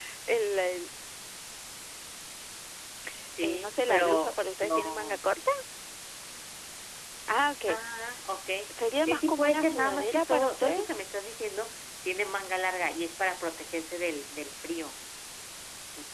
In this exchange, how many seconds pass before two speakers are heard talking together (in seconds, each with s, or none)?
3.4 s